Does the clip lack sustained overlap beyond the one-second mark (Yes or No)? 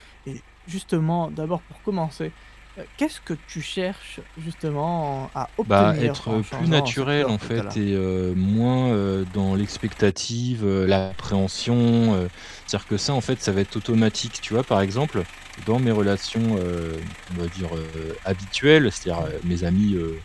No